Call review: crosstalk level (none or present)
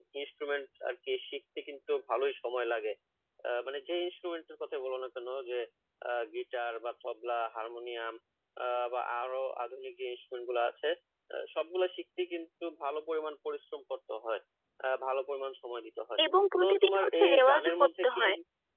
present